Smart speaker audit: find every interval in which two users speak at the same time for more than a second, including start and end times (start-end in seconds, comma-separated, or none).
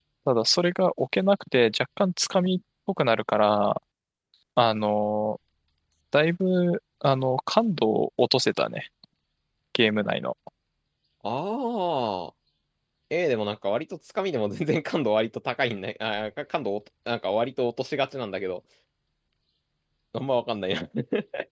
none